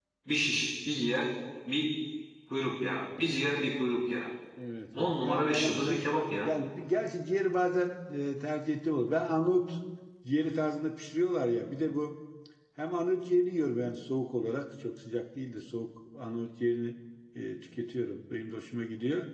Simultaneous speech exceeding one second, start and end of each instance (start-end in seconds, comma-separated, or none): 5.0-6.5